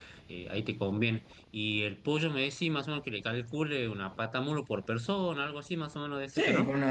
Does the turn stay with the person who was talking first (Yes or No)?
No